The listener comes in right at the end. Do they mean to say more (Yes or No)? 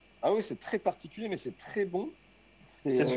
Yes